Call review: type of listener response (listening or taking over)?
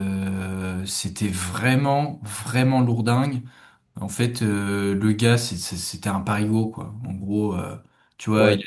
listening